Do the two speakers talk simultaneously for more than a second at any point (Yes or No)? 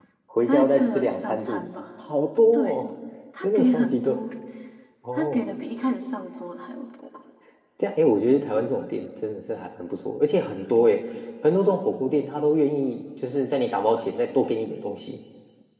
Yes